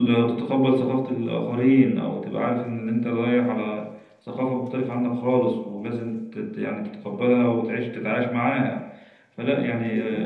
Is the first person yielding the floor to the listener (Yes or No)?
No